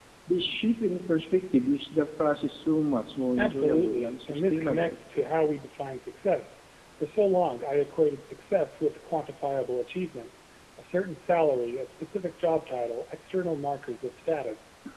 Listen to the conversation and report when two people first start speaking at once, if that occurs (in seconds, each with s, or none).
3.4 s